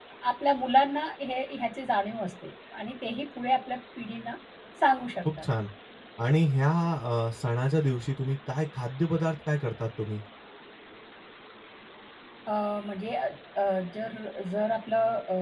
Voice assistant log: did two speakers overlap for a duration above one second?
No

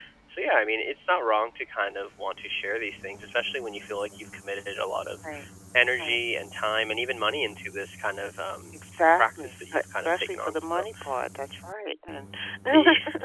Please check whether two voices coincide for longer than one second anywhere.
Yes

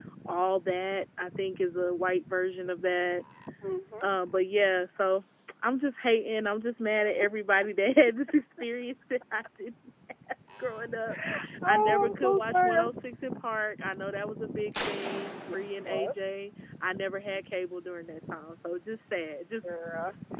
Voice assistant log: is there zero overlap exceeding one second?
No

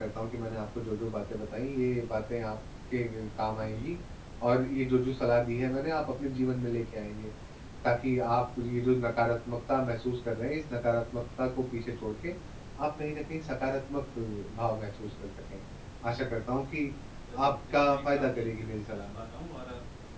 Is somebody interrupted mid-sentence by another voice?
Yes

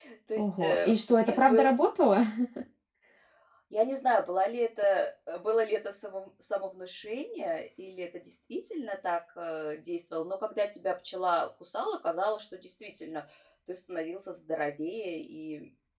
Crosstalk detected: Yes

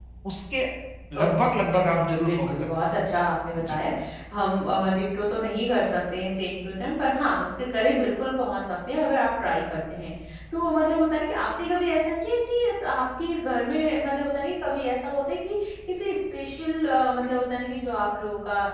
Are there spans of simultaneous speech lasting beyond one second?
Yes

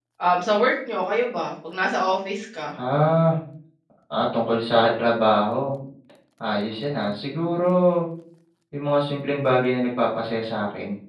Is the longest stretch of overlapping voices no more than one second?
Yes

